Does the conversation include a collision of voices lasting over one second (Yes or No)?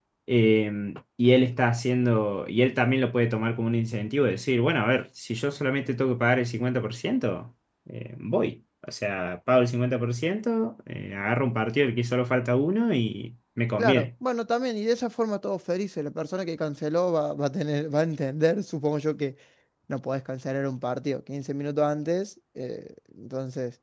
No